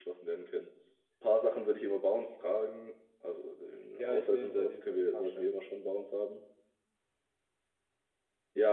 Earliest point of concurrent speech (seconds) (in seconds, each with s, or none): 4.0 s